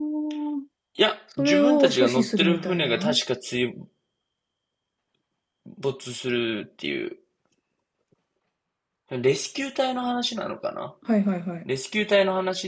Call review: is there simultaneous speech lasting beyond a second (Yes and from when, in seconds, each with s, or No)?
Yes, from 1.4 s